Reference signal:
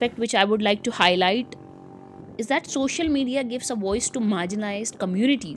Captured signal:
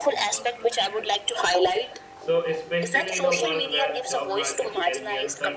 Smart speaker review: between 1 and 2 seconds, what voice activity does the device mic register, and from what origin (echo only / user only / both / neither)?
both